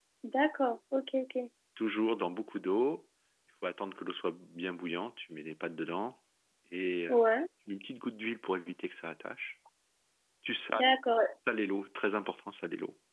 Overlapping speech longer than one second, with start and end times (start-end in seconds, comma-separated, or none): none